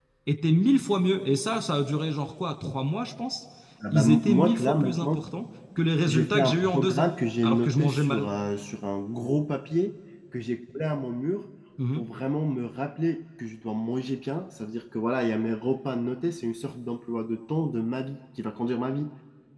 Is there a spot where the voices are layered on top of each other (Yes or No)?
Yes